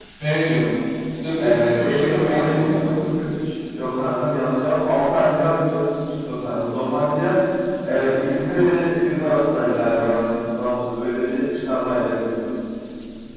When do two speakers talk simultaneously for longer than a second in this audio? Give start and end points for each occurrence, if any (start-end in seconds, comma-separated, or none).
1.4-3.0